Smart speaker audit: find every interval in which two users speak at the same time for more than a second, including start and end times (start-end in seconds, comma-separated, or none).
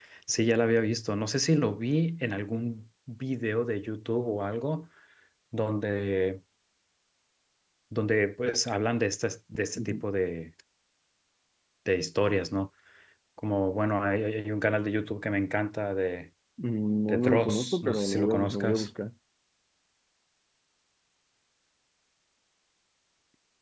17.1-18.9